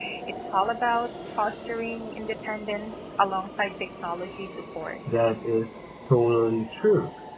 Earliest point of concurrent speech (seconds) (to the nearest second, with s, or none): none